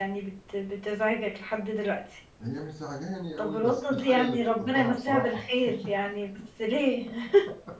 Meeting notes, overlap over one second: present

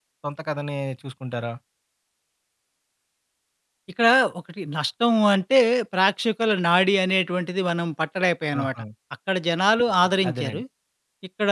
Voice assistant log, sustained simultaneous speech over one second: none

